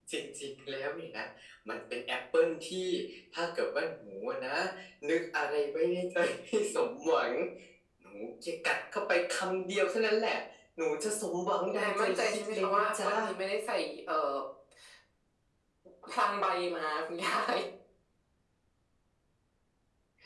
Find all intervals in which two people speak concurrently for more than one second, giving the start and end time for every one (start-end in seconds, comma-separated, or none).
11.6-13.1